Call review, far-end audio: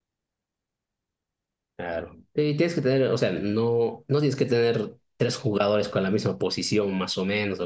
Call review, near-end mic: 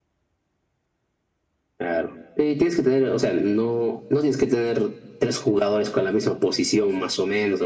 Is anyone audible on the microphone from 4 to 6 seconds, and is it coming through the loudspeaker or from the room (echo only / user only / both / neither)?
echo only